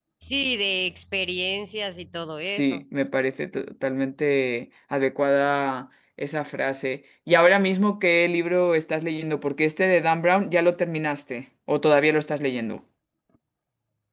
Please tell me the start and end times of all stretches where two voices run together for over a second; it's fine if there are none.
none

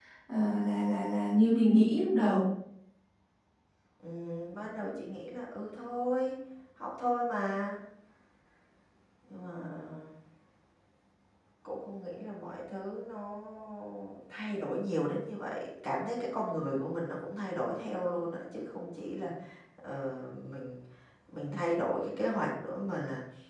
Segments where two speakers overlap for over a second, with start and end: none

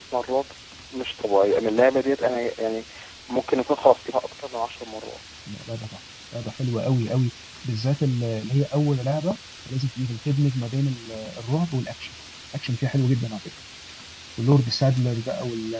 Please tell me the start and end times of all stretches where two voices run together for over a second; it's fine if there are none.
none

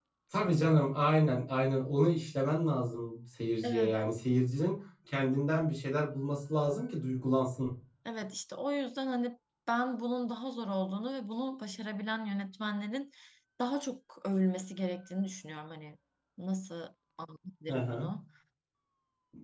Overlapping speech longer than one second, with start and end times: none

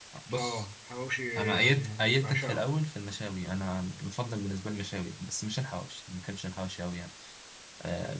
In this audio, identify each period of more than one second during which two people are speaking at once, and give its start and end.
1.4-2.6

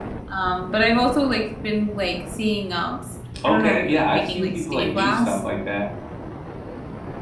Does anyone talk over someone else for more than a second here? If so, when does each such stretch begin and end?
3.4-5.4

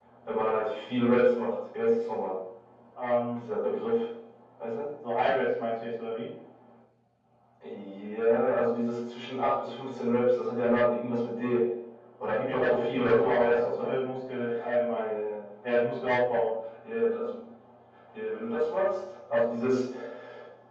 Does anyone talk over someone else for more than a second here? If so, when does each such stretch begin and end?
12.4-13.9

